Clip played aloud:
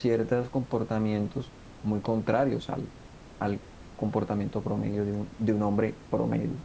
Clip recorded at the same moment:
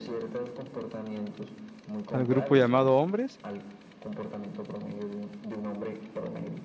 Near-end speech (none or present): present